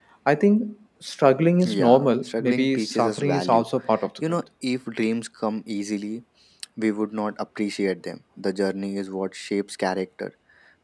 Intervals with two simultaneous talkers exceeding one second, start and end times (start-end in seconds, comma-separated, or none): 1.6-3.6